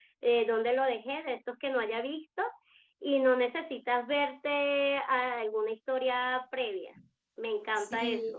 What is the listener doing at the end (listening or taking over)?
taking over